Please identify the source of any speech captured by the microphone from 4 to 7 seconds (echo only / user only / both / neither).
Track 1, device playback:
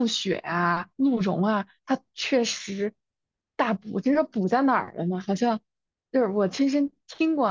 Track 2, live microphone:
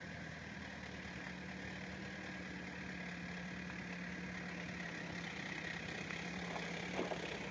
neither